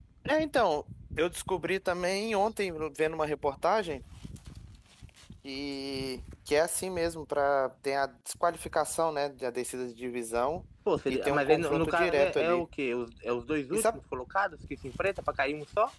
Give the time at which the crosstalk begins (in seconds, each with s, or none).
11.1 s